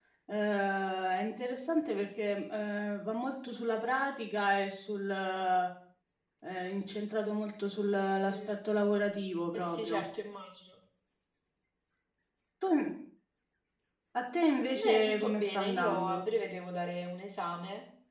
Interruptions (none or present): present